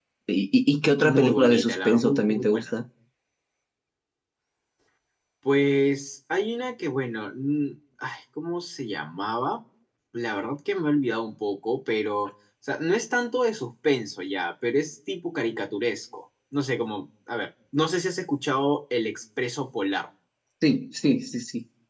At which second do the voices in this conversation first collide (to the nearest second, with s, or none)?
1 s